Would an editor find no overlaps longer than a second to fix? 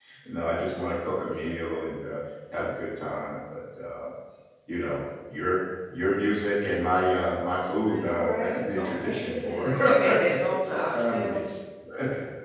No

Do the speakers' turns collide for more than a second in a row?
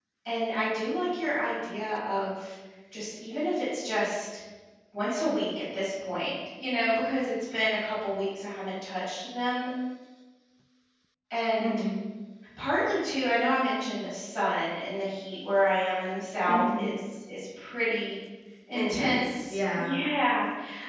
Yes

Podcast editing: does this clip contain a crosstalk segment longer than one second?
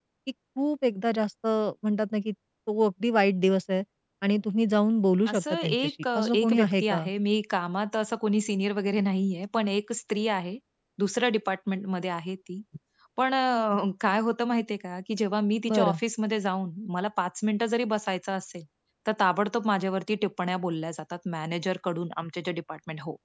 Yes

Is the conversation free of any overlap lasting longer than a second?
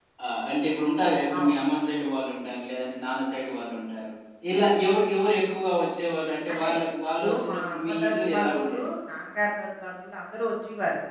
No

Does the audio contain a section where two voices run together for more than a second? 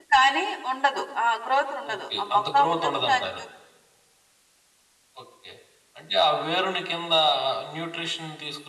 Yes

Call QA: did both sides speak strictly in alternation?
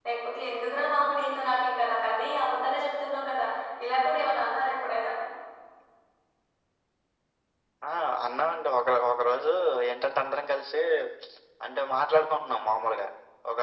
Yes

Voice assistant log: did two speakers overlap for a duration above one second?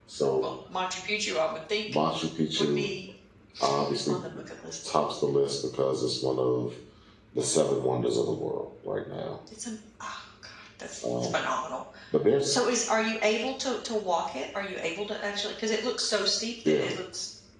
No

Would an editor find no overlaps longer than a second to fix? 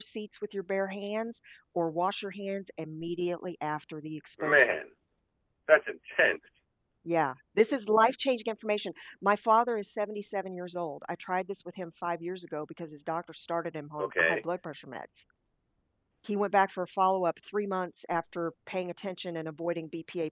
Yes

